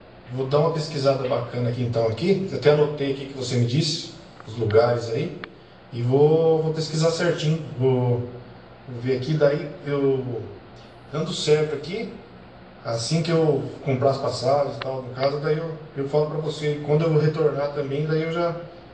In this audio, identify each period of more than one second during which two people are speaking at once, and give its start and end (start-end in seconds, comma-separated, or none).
none